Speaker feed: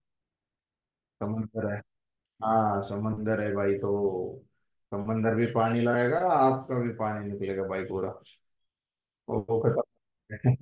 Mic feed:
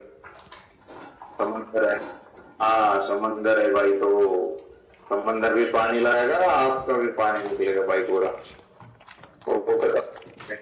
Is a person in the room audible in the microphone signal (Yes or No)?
No